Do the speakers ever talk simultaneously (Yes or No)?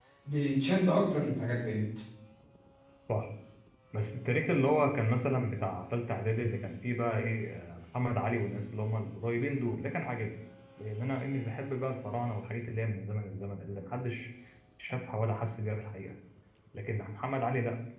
No